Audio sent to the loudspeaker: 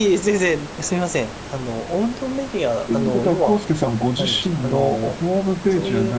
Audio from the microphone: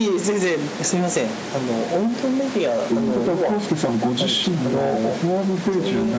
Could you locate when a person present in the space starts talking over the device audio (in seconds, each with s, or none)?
none